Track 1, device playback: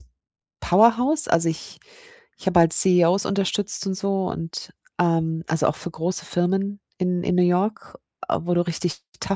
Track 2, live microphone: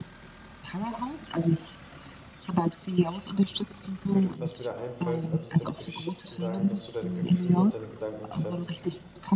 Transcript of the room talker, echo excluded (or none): würde was mir da einfällt als Tipp, würde ich sagen, dass du deine Gefühle und deine Gedanken trennst.